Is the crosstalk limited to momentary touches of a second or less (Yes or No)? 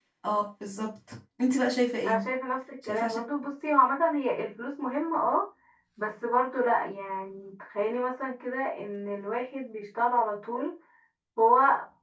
Yes